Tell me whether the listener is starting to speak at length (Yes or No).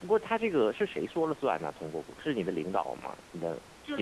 Yes